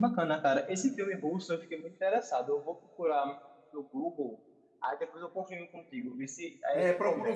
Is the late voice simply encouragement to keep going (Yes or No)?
No